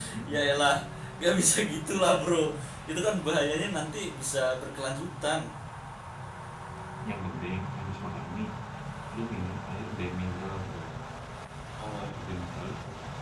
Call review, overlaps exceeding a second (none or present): none